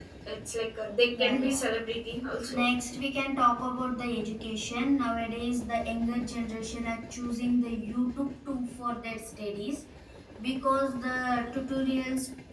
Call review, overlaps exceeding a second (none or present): none